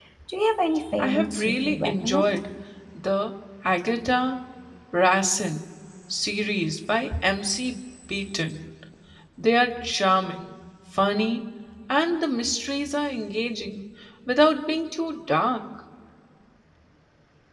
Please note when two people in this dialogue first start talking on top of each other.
1.0 s

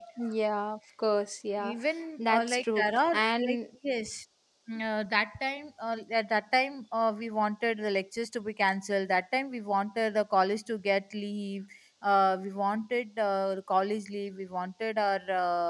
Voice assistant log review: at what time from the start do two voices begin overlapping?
2.2 s

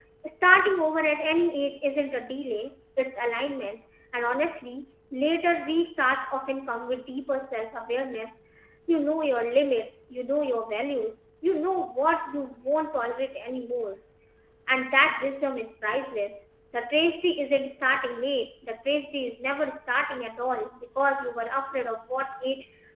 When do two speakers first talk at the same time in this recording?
none

